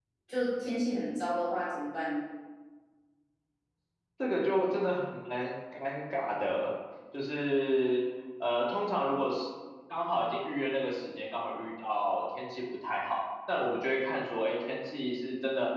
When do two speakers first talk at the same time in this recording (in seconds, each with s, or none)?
none